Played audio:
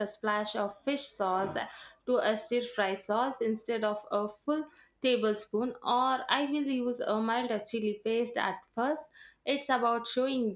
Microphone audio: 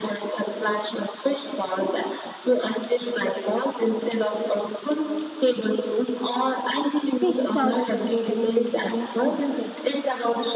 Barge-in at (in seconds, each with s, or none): 7.2 s